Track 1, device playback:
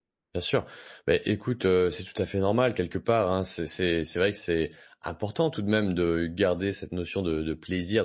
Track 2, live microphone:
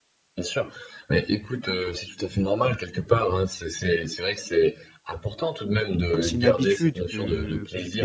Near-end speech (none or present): present